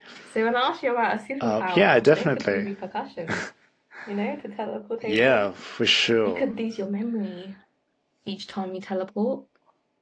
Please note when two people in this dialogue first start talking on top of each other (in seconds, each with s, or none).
1.4 s